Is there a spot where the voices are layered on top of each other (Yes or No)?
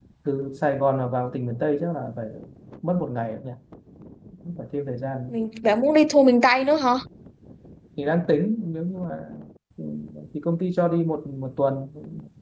No